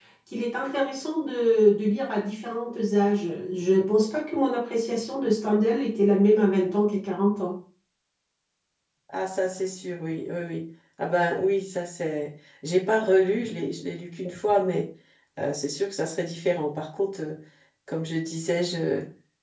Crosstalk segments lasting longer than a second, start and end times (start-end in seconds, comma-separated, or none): none